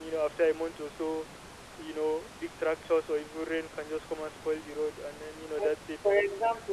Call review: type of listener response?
taking over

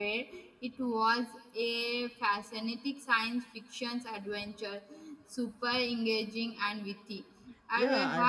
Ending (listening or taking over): taking over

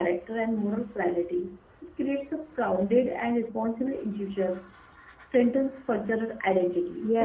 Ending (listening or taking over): taking over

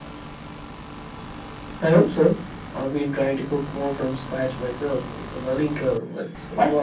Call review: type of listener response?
taking over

